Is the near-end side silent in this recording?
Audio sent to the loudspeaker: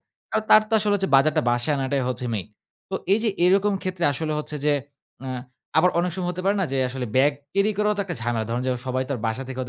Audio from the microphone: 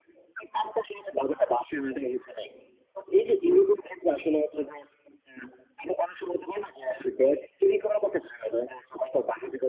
Yes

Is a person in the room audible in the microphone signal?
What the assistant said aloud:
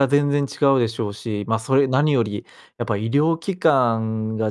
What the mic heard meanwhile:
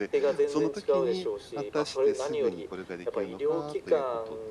Yes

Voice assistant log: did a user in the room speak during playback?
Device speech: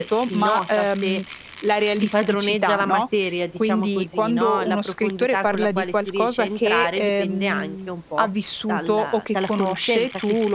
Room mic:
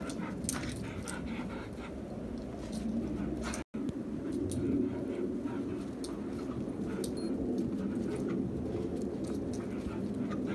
No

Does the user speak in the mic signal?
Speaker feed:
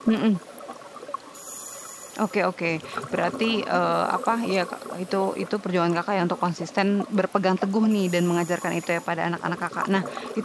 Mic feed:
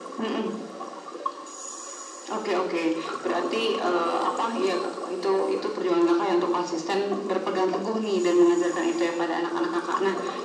No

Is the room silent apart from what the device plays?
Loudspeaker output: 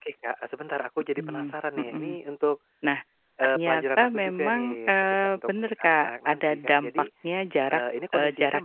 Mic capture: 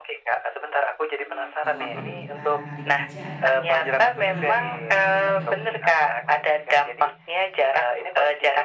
No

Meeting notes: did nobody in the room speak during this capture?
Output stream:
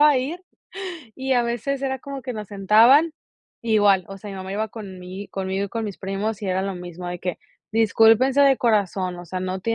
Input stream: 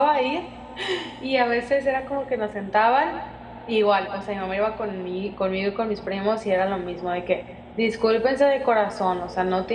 Yes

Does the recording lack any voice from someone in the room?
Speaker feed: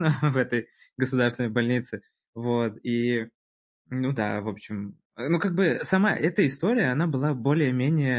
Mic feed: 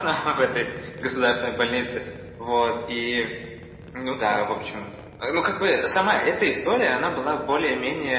Yes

